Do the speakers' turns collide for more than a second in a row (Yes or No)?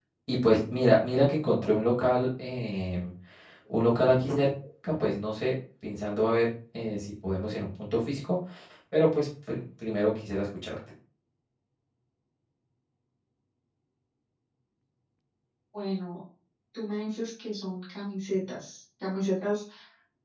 No